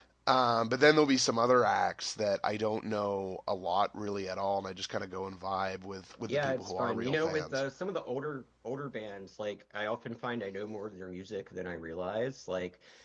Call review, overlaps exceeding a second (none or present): present